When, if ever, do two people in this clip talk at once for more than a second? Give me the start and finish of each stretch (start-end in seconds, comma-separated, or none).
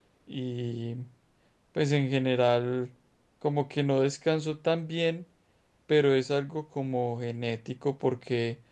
none